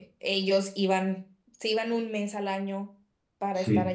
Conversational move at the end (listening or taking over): listening